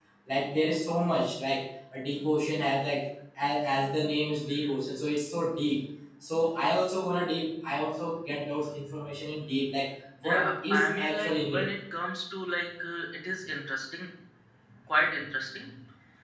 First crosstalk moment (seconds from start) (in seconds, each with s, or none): 10.2 s